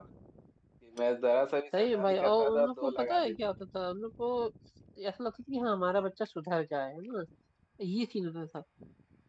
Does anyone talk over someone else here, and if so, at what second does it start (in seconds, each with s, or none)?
1.7 s